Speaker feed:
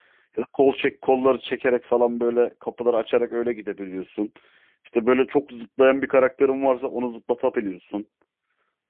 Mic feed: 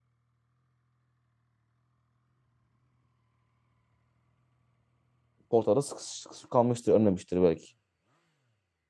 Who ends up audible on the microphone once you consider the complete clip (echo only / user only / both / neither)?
user only